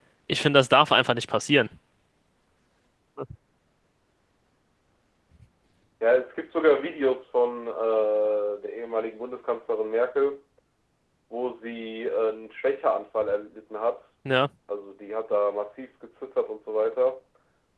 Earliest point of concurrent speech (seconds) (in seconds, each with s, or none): none